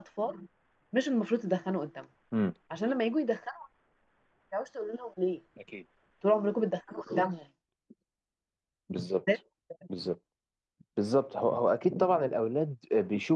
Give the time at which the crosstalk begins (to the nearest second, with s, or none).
none